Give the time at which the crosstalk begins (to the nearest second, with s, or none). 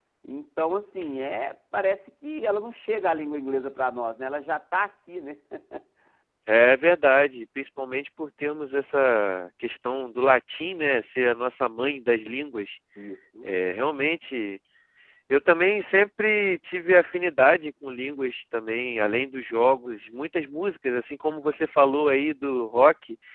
none